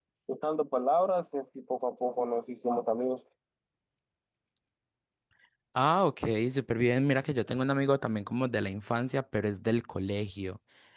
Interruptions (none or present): none